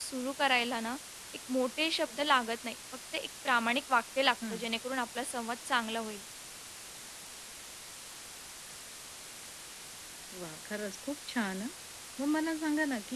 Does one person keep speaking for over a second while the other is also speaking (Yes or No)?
No